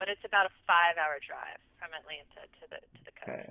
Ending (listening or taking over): taking over